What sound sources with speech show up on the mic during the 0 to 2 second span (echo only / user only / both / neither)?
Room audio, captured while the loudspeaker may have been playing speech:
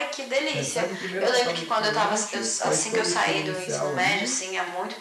both